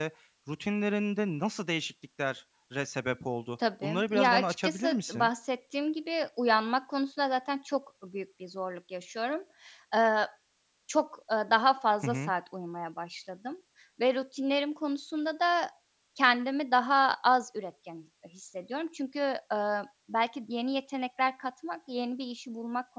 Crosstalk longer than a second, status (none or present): present